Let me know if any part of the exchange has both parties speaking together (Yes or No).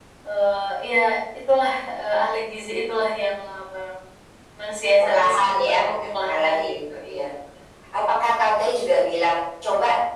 Yes